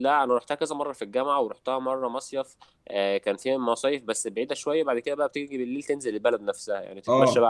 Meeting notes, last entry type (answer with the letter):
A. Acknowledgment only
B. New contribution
A